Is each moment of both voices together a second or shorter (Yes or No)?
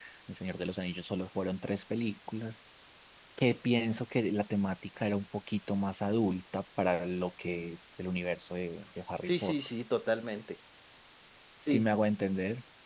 Yes